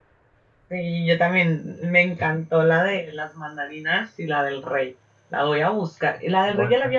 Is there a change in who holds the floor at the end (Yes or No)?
No